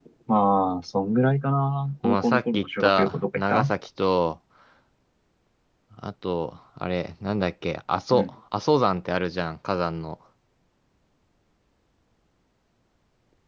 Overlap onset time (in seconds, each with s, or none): 2.0 s